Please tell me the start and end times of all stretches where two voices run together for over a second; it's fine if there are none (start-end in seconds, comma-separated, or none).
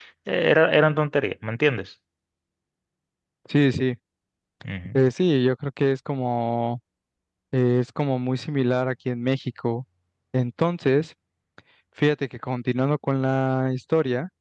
none